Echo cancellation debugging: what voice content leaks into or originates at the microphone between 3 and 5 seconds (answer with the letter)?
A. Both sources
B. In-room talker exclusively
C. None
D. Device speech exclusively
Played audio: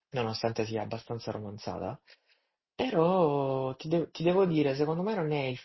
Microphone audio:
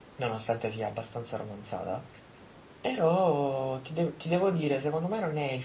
D